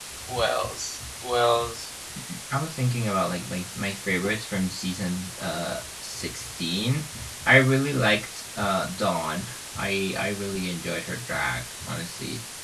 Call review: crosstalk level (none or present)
none